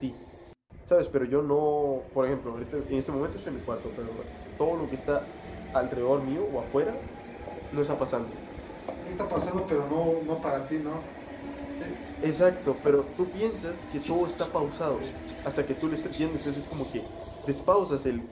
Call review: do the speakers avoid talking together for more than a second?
Yes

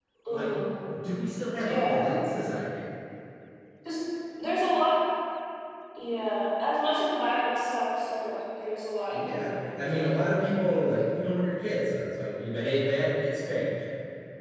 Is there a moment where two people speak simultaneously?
Yes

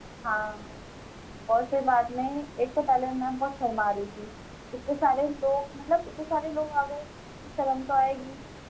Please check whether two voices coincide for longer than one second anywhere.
No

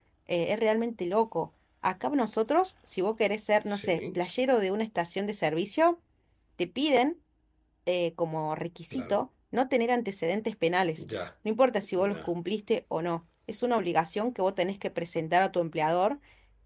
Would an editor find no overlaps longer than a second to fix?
Yes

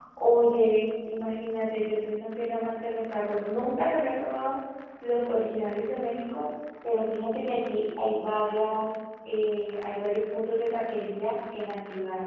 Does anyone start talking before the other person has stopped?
No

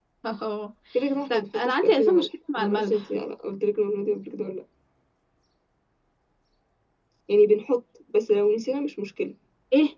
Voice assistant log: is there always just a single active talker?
No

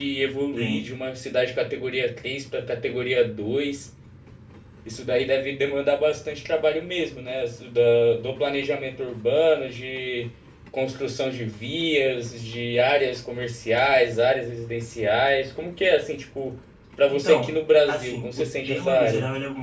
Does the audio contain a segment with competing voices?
Yes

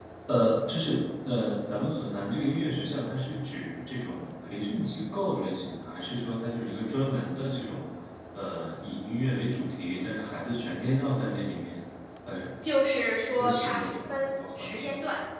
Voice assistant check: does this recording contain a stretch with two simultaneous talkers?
Yes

